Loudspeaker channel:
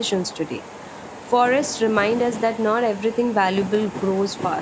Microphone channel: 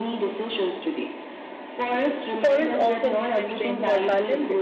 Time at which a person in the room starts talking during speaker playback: 2.4 s

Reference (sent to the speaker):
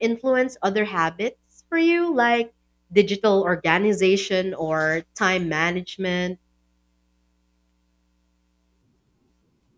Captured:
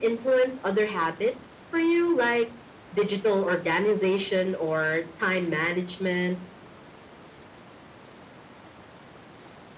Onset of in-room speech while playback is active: none

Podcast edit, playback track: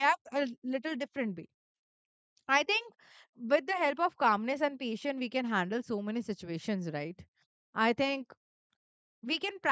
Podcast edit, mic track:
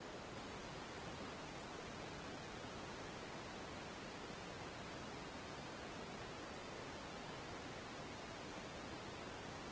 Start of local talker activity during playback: none

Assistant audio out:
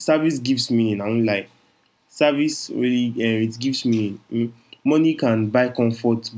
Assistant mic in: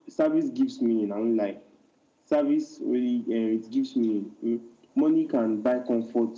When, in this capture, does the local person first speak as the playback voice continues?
none

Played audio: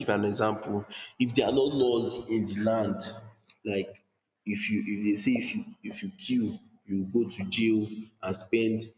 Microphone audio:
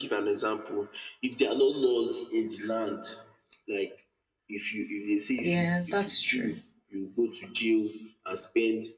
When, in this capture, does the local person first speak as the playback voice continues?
5.4 s

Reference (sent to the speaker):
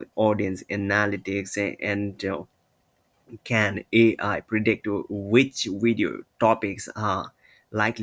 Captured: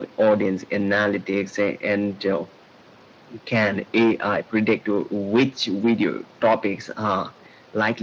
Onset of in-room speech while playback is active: none

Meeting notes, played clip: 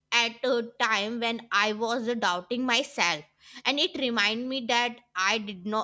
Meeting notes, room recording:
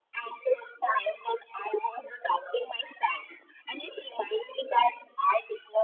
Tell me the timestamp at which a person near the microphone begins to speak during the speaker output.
none

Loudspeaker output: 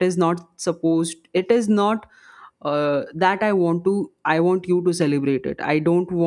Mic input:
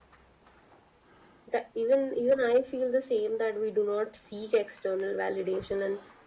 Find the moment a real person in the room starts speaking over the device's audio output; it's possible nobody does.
1.5 s

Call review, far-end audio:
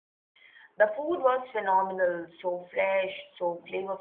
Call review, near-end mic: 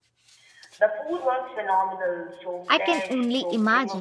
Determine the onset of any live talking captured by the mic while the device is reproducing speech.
2.7 s

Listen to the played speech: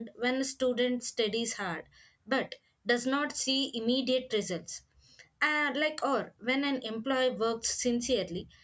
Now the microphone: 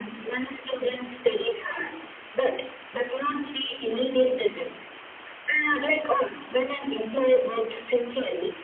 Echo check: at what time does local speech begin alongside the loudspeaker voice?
none

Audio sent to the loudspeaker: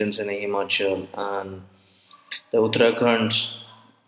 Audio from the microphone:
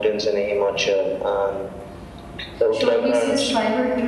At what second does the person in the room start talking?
2.7 s

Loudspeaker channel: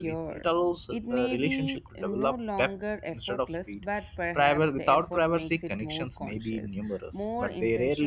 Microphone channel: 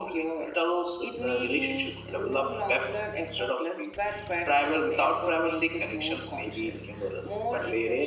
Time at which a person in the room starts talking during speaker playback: none

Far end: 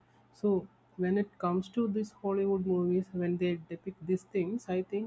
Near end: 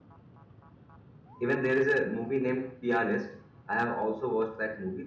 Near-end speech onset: 1.4 s

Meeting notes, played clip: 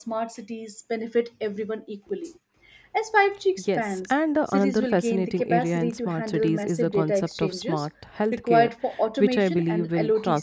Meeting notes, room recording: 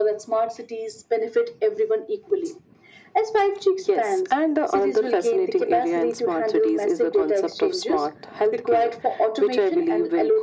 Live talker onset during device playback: none

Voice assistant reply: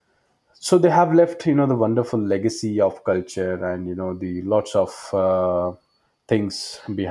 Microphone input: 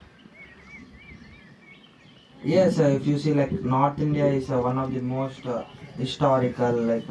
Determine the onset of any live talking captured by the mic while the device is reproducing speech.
2.4 s

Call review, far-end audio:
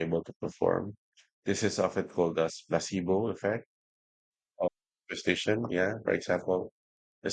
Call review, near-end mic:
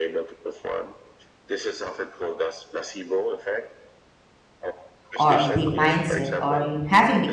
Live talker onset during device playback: 5.1 s

